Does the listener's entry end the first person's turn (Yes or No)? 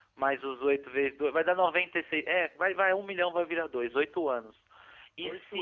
No